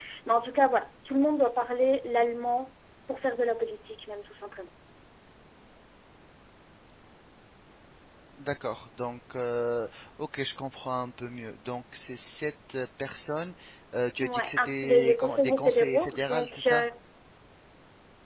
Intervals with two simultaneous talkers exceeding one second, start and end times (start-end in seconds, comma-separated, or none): 14.2-16.9